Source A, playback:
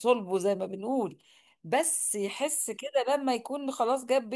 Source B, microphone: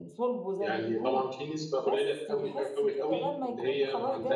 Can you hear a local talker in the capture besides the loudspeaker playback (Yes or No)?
Yes